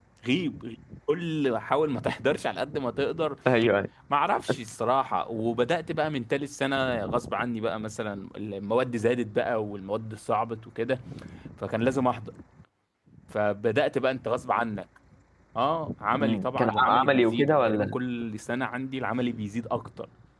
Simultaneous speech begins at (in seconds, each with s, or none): 16.2 s